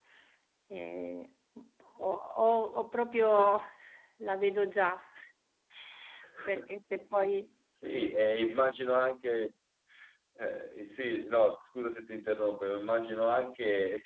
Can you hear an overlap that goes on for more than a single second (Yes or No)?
No